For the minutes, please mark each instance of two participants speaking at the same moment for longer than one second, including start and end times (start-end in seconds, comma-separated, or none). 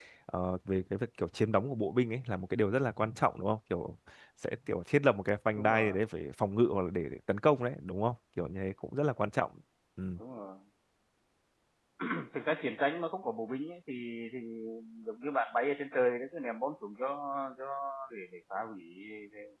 none